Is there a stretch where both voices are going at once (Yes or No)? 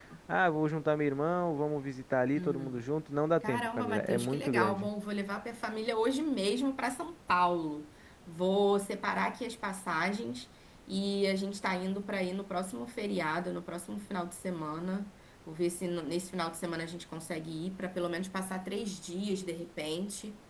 Yes